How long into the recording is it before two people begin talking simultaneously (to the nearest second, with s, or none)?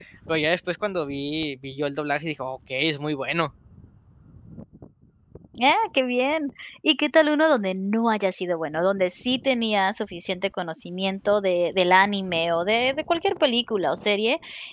none